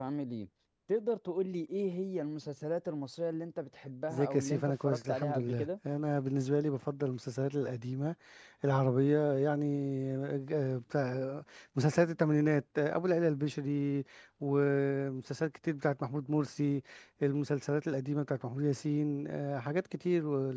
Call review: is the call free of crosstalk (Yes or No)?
No